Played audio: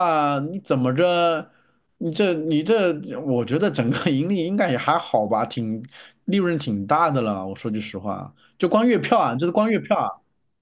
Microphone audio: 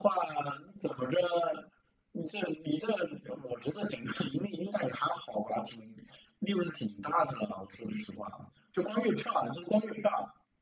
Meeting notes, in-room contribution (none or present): none